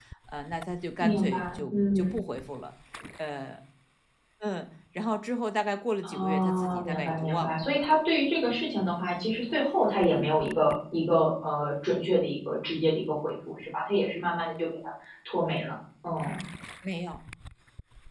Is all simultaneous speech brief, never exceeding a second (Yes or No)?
No